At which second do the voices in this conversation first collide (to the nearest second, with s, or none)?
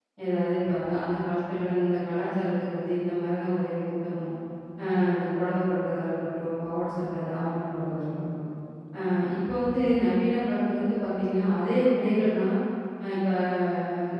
none